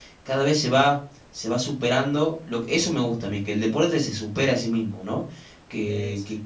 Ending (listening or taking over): listening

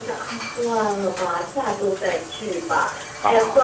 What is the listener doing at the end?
listening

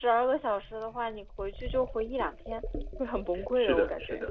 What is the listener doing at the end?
taking over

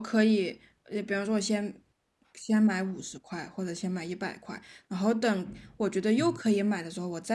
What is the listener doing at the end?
listening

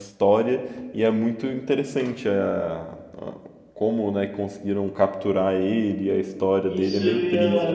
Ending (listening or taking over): taking over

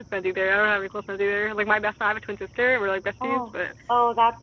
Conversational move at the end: taking over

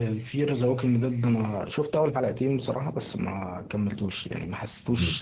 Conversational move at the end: listening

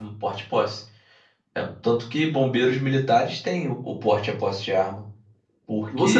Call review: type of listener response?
taking over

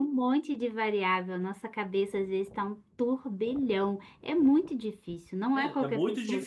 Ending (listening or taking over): taking over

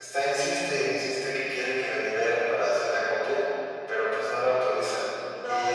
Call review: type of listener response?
taking over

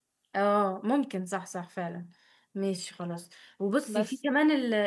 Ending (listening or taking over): listening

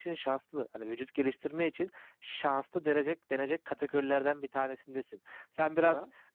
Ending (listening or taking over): listening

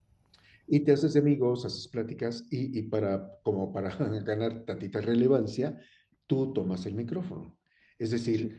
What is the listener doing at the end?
listening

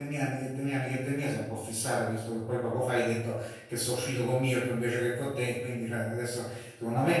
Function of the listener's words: taking over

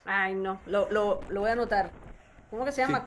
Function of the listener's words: taking over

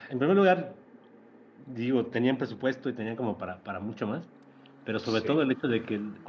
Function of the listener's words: listening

